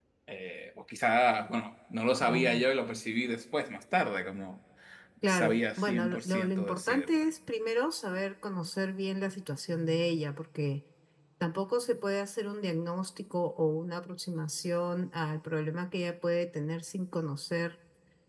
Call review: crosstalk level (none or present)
present